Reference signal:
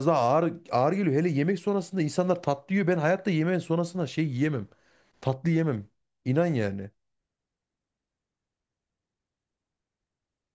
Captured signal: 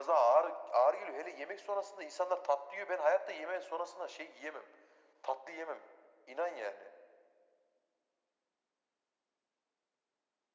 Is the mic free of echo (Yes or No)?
No